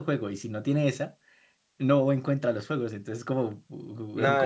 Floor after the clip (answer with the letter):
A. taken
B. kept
A